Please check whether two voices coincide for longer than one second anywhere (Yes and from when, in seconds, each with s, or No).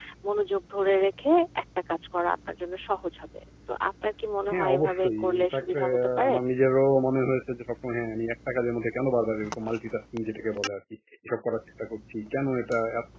Yes, from 4.5 s